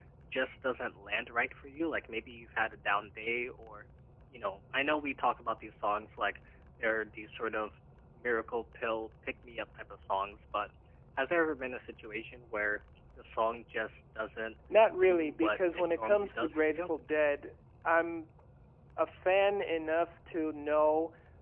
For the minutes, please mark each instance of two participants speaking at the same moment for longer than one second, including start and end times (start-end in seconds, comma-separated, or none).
15.1-16.9